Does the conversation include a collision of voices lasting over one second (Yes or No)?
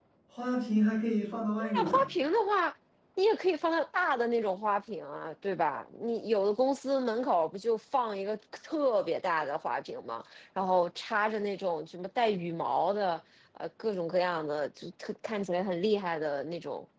No